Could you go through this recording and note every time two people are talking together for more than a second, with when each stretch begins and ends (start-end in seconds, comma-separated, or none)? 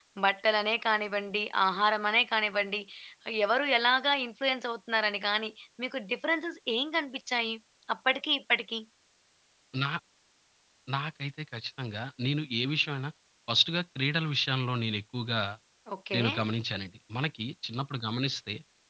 none